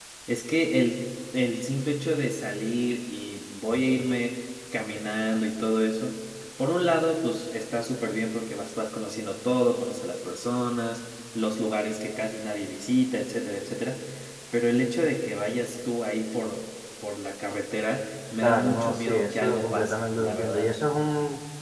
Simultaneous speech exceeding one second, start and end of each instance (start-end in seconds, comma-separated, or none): 18.4-20.7